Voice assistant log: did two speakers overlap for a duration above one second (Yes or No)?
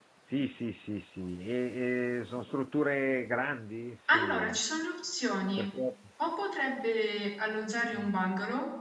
No